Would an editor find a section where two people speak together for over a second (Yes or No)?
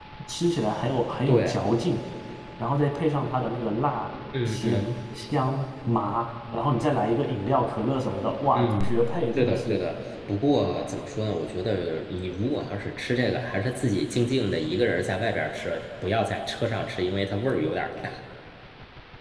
No